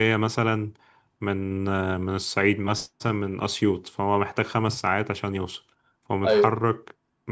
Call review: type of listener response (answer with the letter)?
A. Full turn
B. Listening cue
B